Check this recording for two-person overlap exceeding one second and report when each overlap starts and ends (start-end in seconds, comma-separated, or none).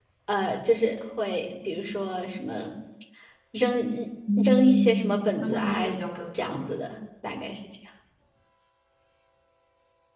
4.4-5.8